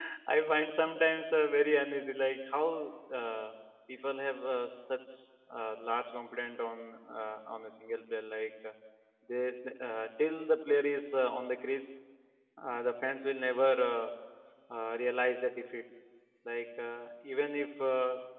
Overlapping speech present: No

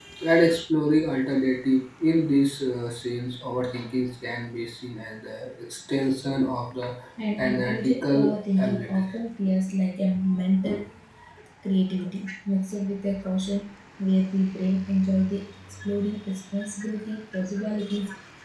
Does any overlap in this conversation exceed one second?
Yes, from 7.4 s

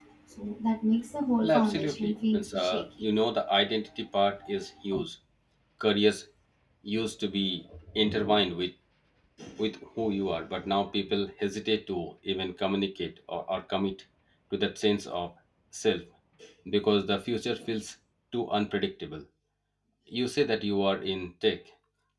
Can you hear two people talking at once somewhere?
Yes, from 1.4 s

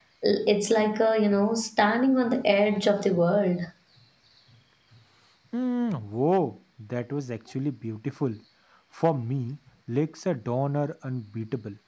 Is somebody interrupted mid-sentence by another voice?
No

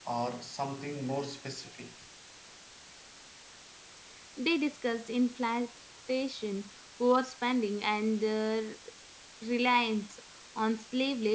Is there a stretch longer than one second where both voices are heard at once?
No

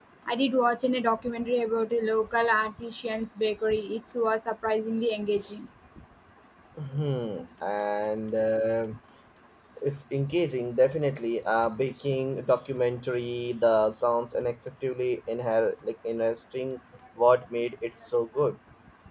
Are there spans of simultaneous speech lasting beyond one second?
No

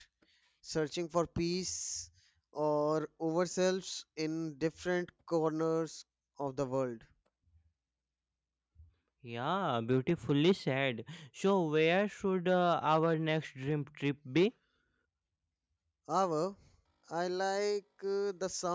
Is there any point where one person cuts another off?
No

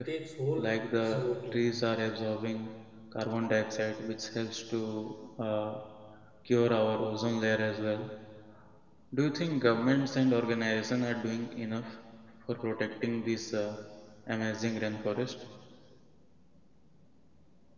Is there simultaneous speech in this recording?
Yes, from 0.6 s

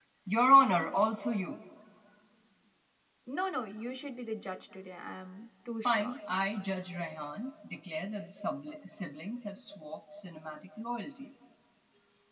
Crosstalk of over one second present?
No

